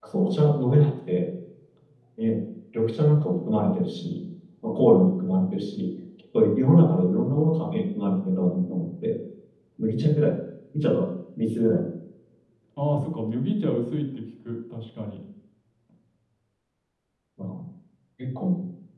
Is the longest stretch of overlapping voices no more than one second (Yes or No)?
Yes